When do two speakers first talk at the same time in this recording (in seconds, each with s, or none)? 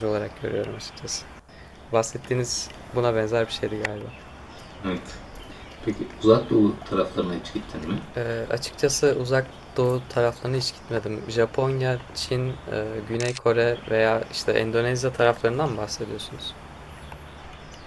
none